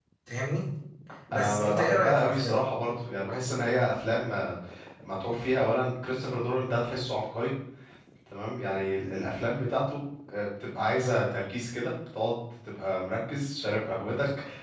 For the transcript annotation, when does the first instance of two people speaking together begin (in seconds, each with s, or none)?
1.3 s